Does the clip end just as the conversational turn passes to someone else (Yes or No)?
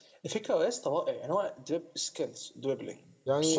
Yes